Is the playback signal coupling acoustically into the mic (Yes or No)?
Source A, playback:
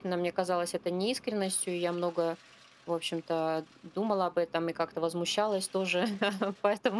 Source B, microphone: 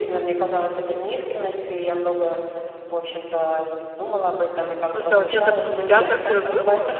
Yes